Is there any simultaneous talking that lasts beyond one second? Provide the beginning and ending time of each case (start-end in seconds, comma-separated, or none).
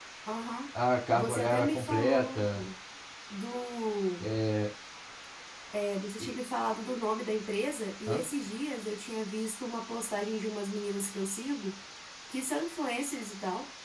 1.1-2.6